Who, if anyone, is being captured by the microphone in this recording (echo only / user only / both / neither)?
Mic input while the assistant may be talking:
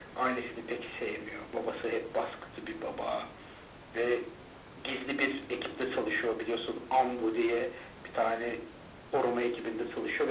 echo only